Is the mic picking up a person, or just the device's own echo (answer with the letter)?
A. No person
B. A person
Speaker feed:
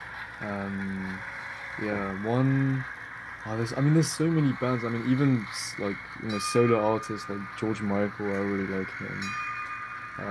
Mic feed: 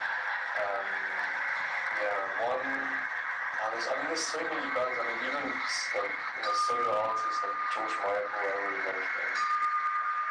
A